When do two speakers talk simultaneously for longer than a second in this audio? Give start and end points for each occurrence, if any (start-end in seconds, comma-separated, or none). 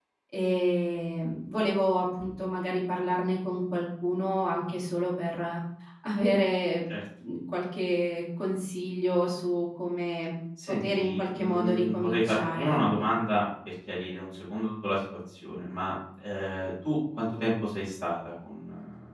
10.7-13.1